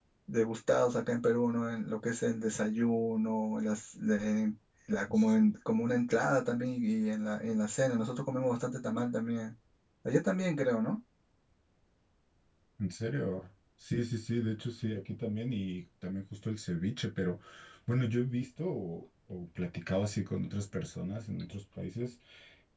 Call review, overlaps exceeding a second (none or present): none